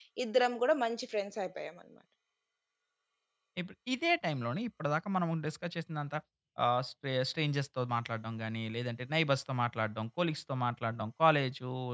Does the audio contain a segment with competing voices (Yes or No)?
No